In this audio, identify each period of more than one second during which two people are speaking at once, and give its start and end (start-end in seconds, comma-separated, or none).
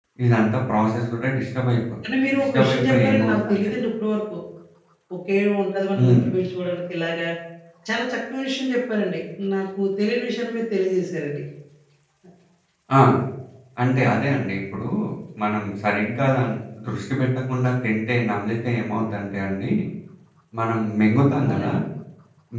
2.3-3.7